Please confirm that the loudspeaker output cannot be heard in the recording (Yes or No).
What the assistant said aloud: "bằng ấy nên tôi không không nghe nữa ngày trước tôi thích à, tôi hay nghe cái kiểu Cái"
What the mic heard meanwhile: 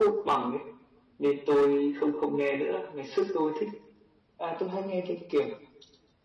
No